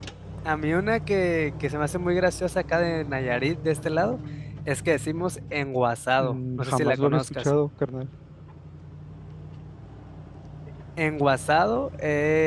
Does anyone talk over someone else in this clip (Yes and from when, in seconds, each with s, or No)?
Yes, from 6.2 s